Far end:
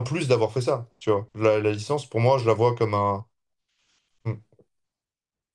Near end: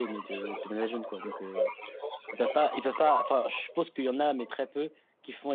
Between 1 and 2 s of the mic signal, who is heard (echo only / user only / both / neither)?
both